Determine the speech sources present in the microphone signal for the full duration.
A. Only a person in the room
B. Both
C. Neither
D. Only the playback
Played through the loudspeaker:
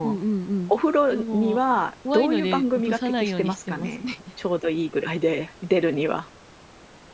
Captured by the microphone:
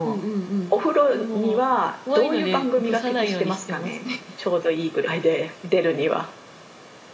D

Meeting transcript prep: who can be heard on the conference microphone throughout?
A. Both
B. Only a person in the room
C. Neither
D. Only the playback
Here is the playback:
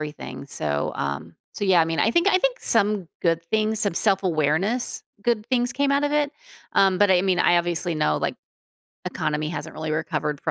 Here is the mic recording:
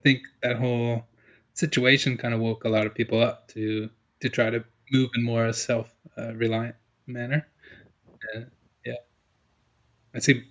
B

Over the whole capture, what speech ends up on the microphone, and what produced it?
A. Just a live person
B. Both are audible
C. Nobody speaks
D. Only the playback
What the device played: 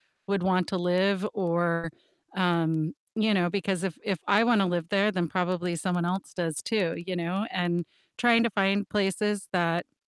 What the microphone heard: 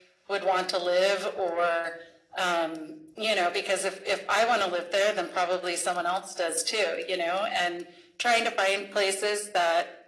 D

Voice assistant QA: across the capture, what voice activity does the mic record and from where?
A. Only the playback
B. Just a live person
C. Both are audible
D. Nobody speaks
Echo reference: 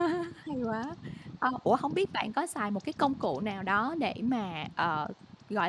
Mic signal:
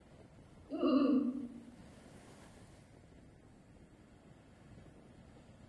B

